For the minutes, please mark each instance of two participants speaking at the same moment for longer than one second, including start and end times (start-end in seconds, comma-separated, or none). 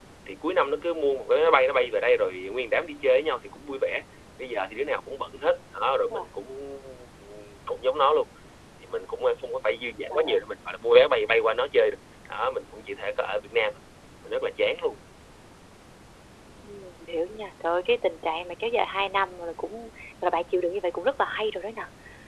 none